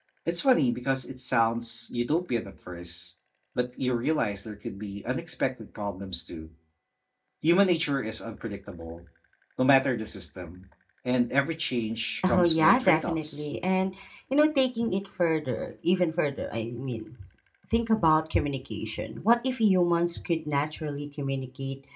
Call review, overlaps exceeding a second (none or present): present